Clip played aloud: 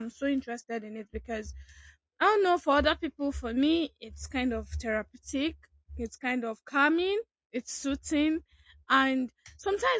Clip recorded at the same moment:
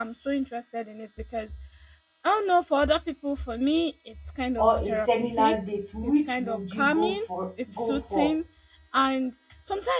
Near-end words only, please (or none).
or a seminar date, which would you go for? Go for